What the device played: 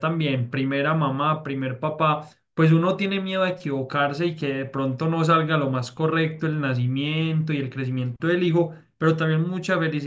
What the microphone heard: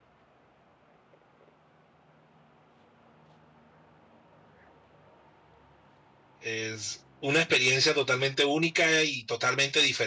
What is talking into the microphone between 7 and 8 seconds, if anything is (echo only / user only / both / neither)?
user only